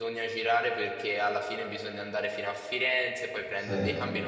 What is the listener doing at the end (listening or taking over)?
listening